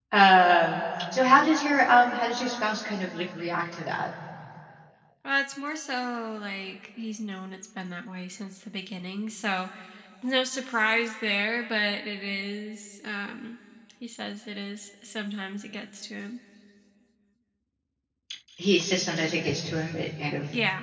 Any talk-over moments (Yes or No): No